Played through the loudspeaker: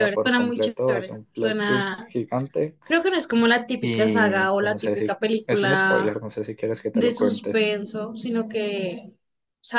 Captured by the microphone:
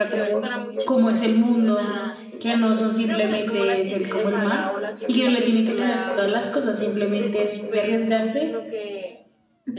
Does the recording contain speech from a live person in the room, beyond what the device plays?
Yes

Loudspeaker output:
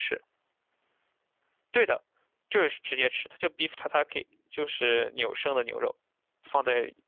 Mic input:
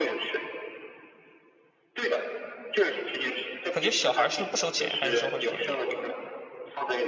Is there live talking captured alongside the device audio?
Yes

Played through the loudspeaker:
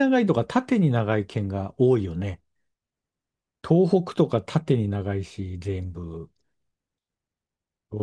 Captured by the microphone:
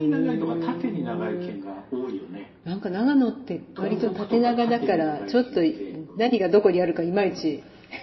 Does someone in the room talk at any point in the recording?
Yes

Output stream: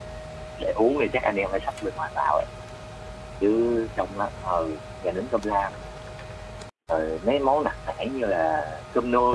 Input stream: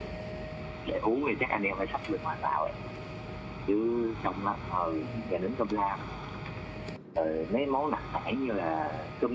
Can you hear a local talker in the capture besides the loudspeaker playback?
Yes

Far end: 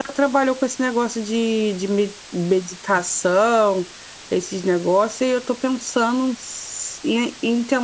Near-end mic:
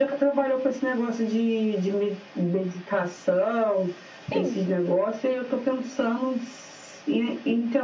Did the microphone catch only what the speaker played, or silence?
No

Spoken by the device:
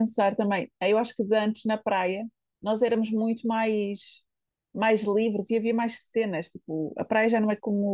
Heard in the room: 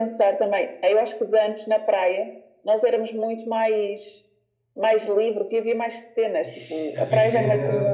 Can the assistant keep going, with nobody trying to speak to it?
No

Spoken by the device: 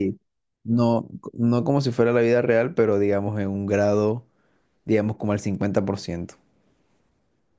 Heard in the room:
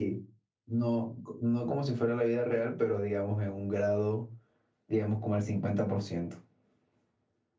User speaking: No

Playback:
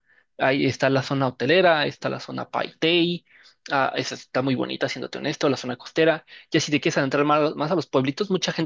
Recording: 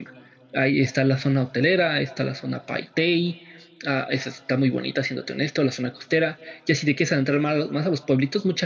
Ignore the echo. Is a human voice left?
No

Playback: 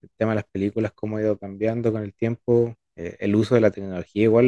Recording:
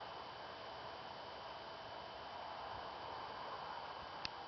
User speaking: No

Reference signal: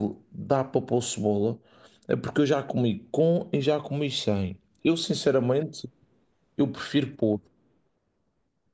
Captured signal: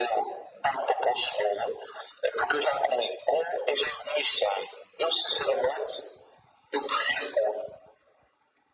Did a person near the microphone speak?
No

